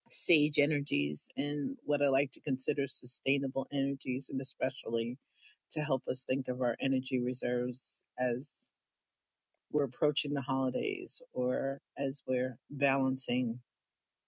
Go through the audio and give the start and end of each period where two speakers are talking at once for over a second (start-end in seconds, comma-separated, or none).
none